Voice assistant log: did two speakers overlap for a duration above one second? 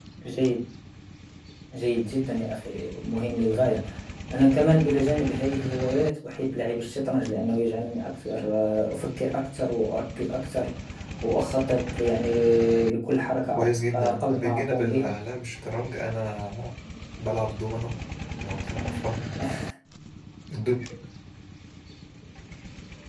Yes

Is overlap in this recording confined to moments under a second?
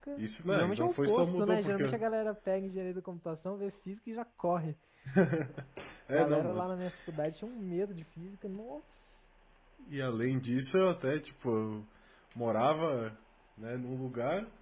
No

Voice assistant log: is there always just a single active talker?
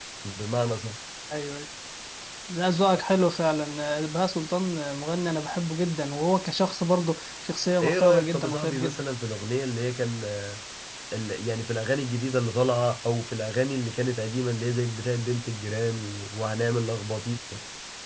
No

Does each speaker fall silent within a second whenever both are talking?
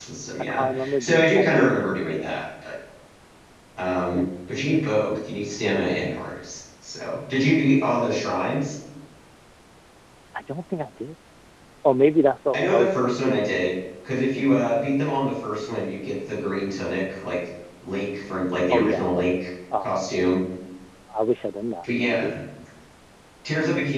No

